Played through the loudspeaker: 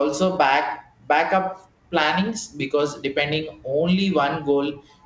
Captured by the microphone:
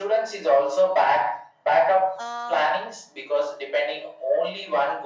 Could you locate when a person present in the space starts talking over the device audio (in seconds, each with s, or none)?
2.2 s